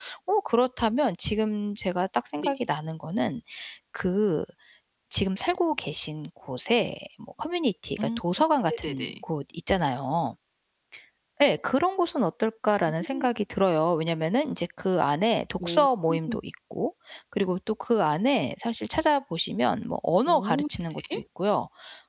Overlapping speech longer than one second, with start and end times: none

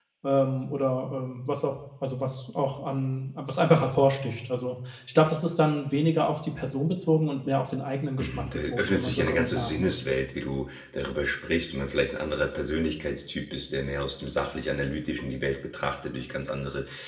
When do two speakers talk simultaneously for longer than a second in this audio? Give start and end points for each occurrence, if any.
8.2-10.0

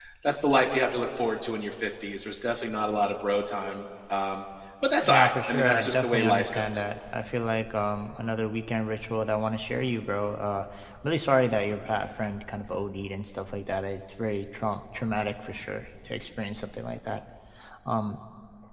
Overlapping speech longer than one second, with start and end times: 5.1-6.8

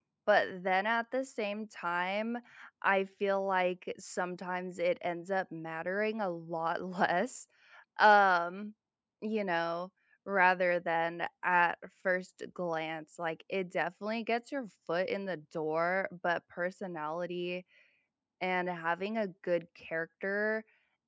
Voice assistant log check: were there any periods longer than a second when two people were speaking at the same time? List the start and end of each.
none

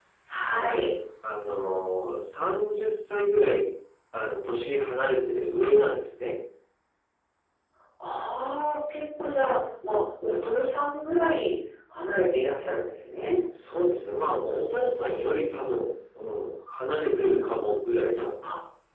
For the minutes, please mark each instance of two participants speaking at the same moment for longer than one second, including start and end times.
none

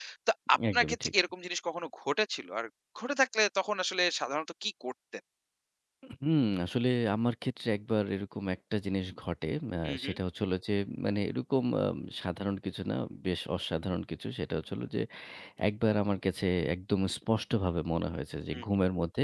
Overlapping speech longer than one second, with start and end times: none

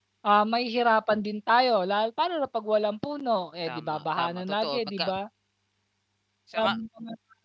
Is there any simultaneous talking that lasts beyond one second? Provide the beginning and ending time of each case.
3.7-5.1

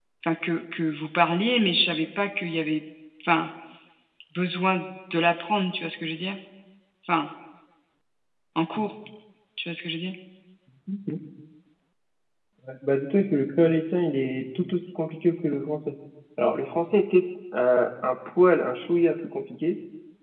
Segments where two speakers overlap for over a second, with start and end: none

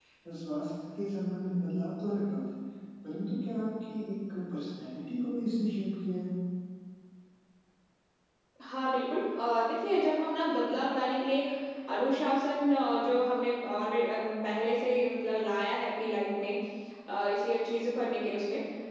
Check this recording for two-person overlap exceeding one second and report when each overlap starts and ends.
none

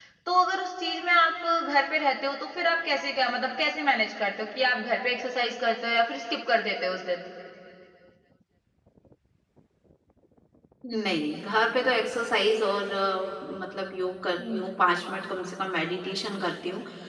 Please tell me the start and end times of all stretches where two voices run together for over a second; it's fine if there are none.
none

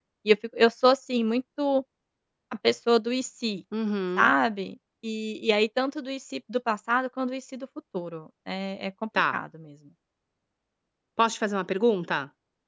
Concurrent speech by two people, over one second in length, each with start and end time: none

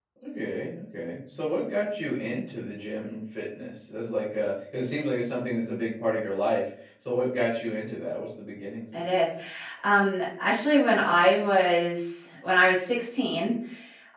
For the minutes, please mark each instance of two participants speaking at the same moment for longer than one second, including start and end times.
none

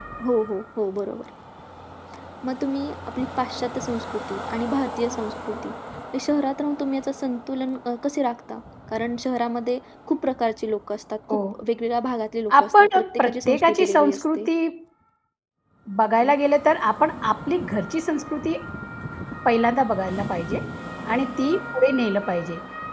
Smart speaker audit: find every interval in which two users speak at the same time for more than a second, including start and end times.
12.6-14.5

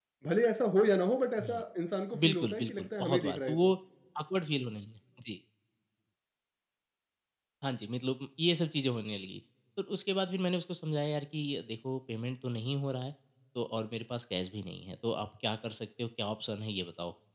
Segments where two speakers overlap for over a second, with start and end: 2.2-3.7

